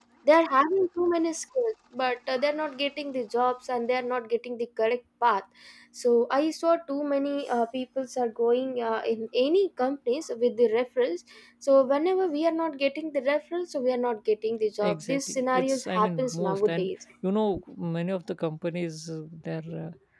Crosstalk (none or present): present